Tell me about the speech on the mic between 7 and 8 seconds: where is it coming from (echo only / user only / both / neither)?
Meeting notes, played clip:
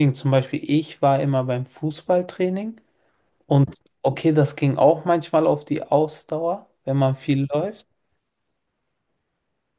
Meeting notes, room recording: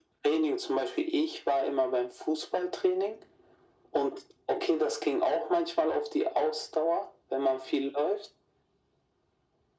echo only